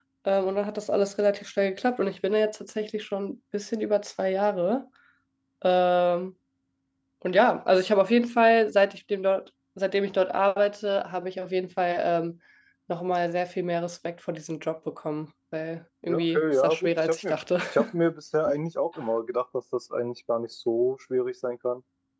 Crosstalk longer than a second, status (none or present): present